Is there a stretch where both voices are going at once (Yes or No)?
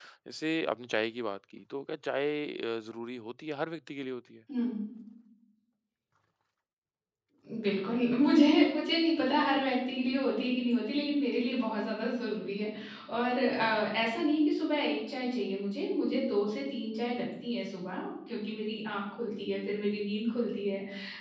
No